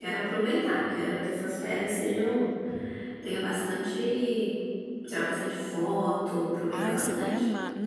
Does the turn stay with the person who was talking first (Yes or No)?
No